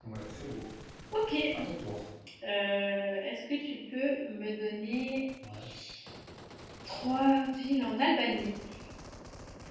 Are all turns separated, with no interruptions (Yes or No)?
Yes